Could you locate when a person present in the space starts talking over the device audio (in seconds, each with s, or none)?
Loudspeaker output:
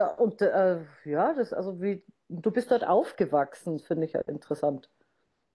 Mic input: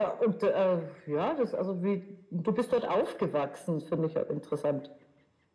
none